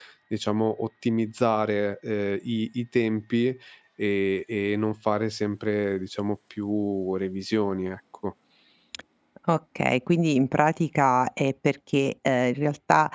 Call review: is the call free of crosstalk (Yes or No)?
Yes